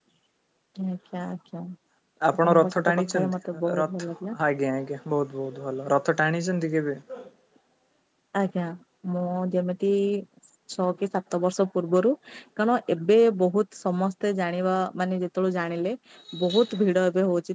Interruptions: present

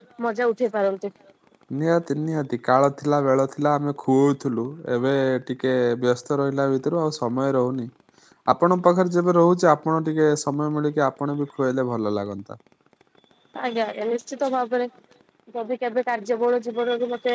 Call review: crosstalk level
none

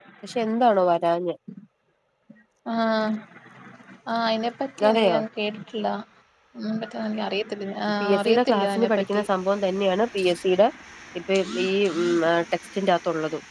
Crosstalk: present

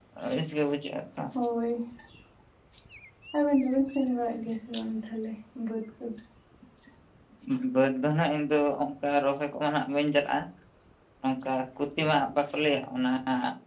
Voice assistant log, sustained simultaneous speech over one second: none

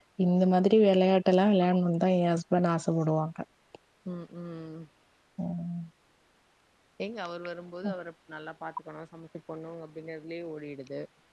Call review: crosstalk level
none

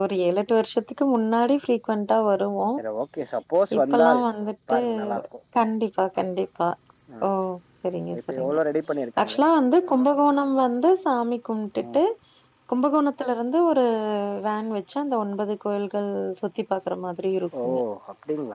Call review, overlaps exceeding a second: none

